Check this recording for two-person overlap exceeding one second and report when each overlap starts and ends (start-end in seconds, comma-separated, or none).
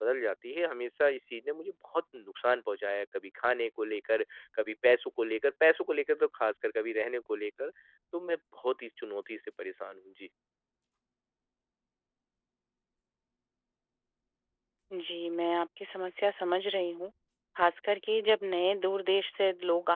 none